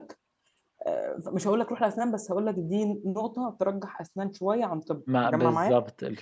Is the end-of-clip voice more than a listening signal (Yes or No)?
Yes